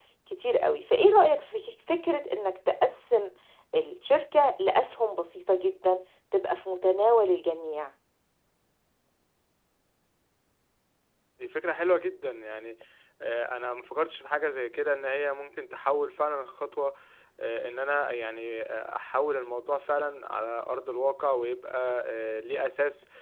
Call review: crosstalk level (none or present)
none